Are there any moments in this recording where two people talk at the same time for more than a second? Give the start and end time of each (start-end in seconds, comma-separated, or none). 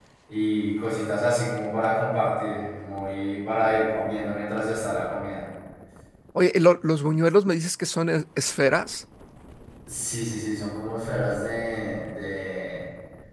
none